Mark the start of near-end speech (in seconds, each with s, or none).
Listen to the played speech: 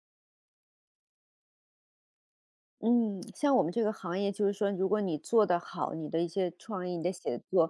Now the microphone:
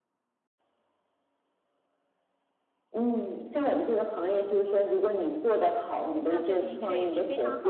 6.1 s